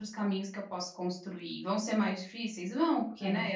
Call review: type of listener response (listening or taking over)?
listening